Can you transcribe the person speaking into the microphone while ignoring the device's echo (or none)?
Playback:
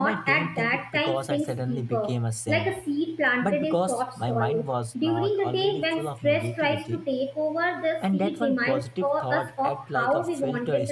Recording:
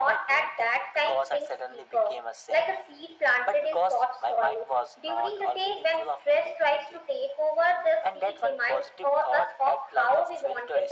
none